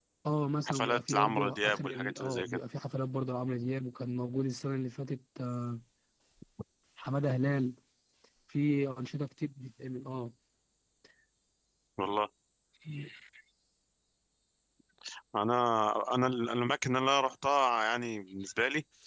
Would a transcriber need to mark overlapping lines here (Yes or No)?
Yes